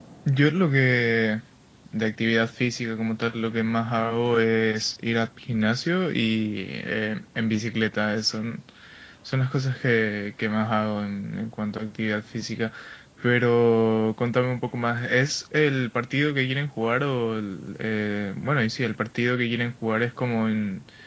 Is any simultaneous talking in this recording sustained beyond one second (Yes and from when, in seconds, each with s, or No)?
No